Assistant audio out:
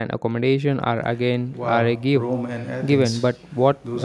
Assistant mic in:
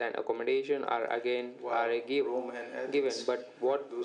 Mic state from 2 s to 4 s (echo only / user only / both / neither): echo only